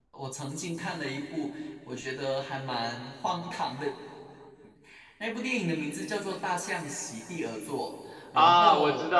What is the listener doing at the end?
taking over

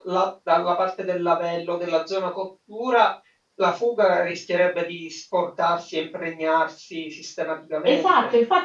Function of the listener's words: taking over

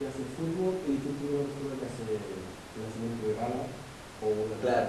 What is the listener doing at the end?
taking over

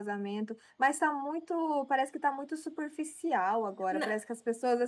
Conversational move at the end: listening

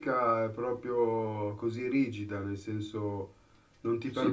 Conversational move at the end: taking over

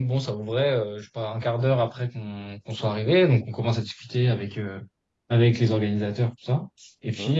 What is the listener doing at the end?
listening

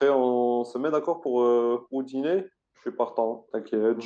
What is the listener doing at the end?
taking over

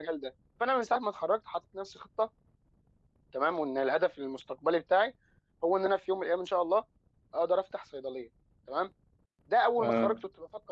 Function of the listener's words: listening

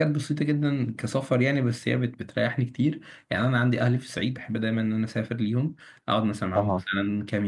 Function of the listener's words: listening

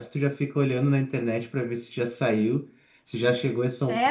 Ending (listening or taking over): taking over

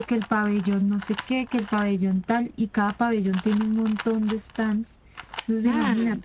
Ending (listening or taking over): listening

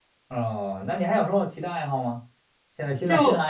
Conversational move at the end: listening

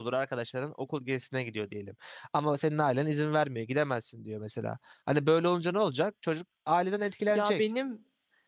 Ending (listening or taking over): taking over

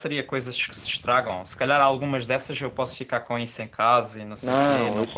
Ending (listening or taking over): taking over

